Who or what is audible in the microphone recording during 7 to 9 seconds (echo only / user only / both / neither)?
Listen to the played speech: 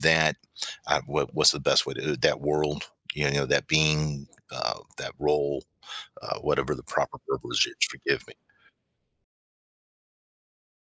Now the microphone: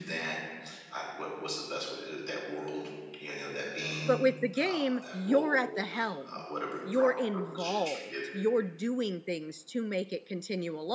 both